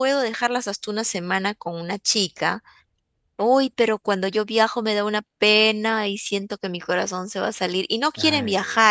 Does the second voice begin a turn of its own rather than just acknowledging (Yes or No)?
No